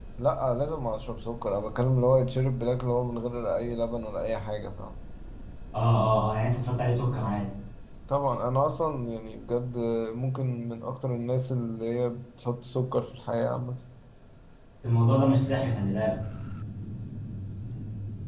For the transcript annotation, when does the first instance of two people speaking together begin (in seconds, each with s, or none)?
none